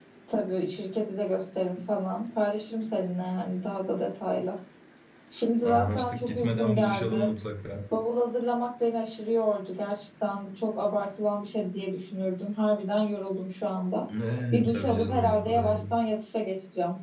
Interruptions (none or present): present